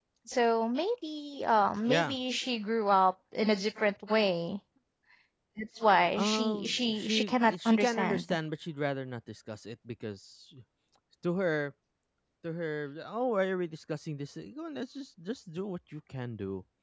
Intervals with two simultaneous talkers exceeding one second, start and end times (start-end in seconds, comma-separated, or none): 6.2-8.4